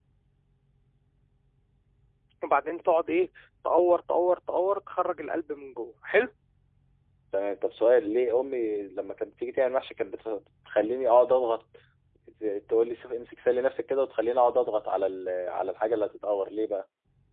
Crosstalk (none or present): none